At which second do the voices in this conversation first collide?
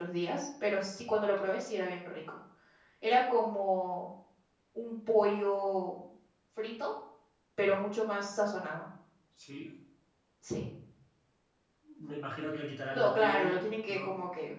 12.9 s

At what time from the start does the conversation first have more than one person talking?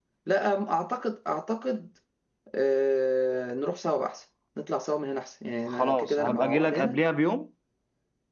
5.7 s

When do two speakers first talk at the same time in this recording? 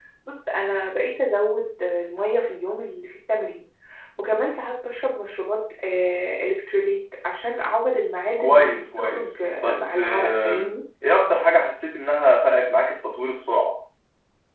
8.4 s

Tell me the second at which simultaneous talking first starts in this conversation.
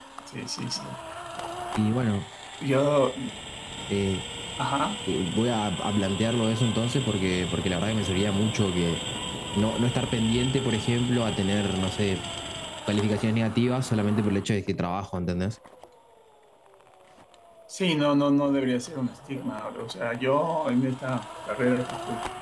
none

